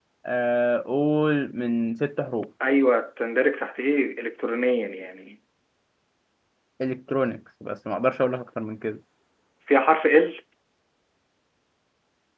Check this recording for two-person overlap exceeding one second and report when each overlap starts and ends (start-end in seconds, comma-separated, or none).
none